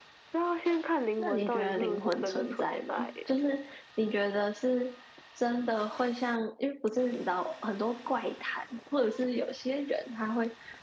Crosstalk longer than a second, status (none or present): present